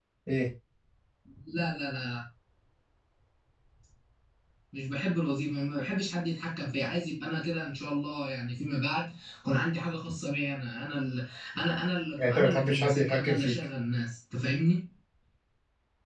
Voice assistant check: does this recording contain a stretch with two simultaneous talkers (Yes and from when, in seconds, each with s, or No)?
Yes, from 12.2 s